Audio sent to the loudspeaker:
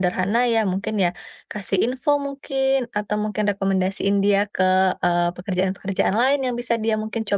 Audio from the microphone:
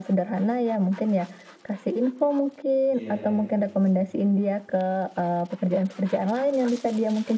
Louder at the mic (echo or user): echo